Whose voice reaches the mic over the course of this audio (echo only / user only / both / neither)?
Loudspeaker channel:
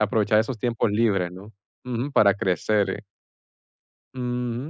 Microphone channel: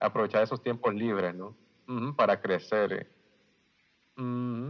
echo only